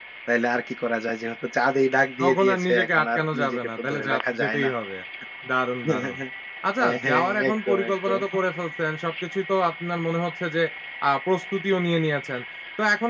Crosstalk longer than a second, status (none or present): present